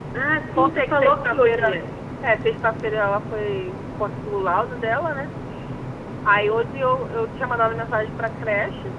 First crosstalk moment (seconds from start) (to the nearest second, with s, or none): 1 s